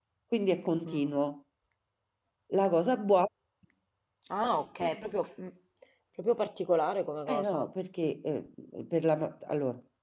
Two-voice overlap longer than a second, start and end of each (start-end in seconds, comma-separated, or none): none